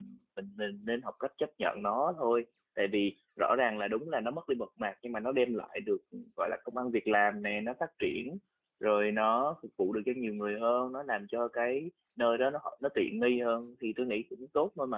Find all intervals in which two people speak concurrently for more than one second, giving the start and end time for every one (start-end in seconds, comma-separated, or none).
none